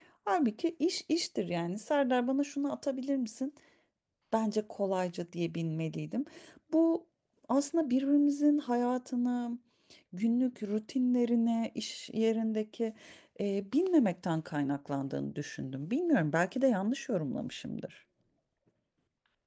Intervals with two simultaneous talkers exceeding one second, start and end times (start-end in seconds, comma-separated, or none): none